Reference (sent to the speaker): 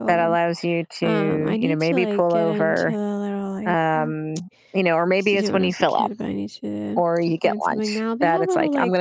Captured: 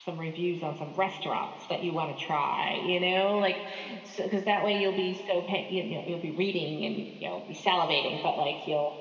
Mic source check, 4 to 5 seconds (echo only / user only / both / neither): user only